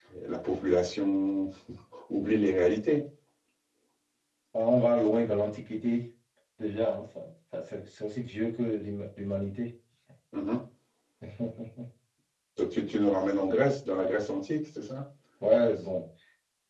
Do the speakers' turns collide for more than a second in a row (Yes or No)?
No